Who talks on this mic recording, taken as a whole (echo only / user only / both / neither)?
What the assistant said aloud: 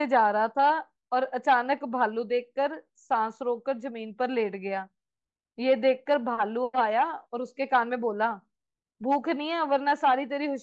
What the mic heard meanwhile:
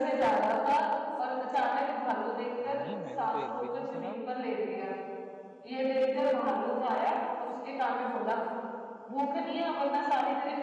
both